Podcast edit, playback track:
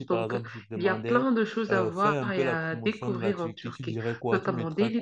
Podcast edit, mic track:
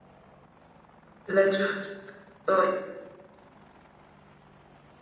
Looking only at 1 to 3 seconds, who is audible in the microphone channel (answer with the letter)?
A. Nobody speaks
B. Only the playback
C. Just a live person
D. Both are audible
C